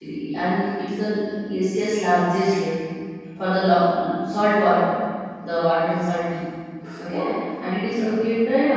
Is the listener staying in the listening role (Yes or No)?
Yes